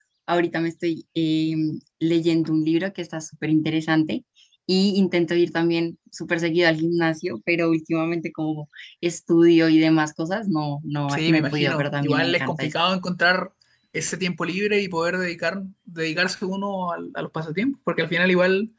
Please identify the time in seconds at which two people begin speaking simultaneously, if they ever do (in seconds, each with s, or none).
11.1 s